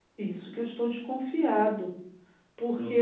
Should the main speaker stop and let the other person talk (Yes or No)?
Yes